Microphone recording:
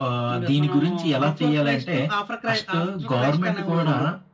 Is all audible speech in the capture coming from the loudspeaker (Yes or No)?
Yes